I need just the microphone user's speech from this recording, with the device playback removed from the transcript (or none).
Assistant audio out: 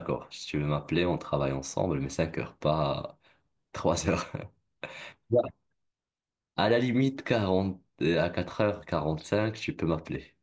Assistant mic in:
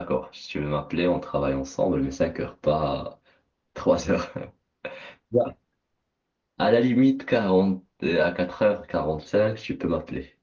none